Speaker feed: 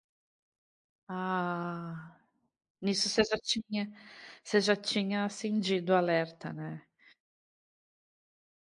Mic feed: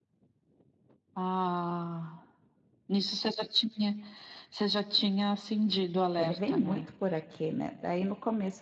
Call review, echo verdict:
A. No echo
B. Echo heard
B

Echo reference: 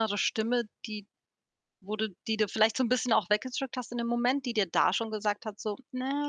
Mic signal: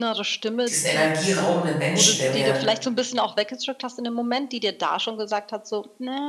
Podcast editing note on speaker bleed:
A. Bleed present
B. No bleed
A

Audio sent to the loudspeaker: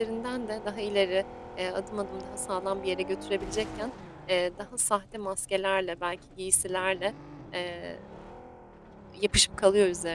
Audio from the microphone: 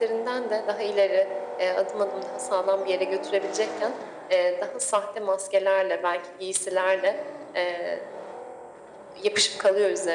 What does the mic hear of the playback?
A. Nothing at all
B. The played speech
B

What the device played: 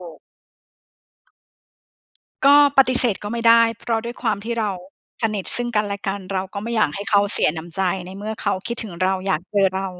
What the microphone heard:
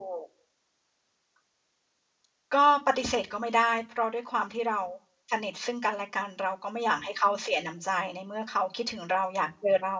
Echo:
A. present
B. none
A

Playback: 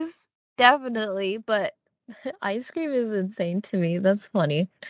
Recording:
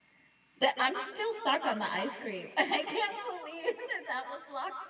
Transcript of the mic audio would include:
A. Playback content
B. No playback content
B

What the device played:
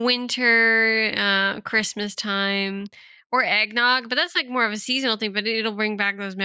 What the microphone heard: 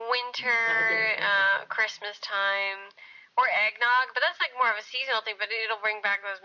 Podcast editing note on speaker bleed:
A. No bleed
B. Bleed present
B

